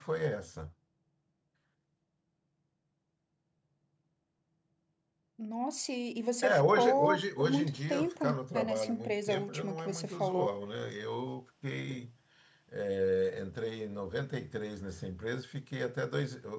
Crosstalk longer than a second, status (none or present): present